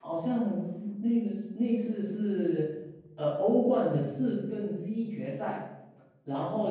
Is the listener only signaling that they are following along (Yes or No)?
Yes